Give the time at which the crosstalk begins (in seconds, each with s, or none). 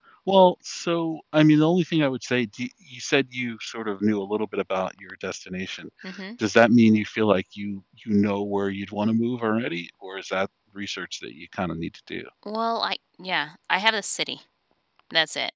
none